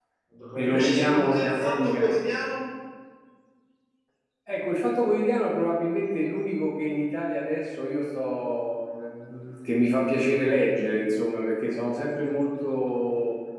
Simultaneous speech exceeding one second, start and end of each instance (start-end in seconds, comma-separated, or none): 0.6-2.1